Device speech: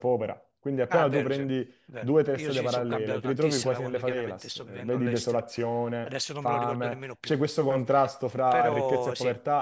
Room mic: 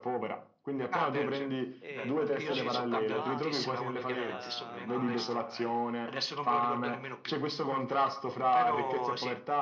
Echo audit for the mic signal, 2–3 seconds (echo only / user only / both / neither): both